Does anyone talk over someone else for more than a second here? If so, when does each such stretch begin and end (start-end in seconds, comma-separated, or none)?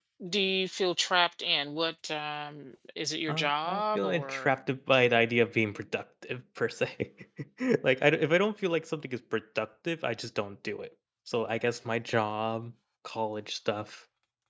3.3-4.5